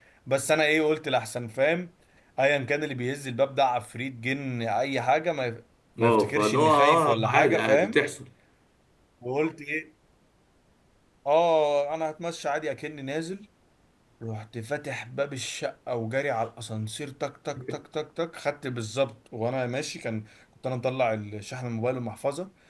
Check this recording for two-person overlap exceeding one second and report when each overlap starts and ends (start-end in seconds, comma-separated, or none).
6.0-8.0